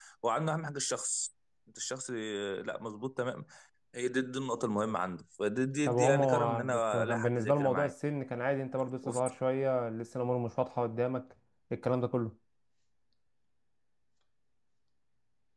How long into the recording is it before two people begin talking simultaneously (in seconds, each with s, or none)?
5.8 s